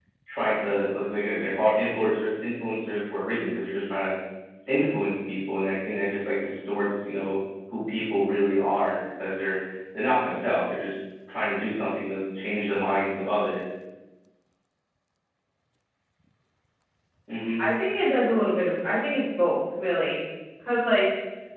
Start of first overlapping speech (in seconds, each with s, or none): none